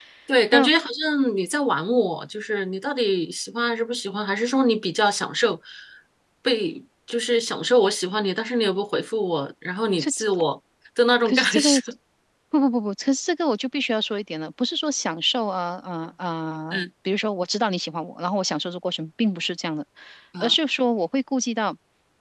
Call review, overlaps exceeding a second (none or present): none